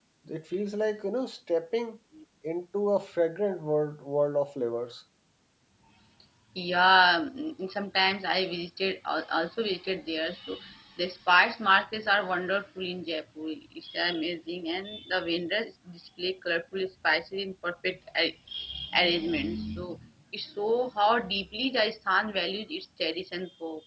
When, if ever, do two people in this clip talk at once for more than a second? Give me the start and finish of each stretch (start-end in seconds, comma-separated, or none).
none